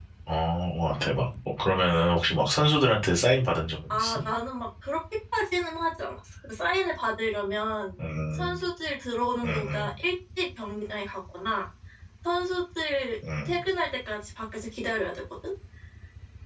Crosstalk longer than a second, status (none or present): none